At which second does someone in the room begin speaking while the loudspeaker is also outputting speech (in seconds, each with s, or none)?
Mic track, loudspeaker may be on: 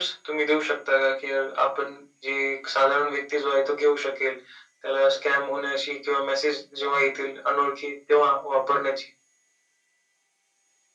none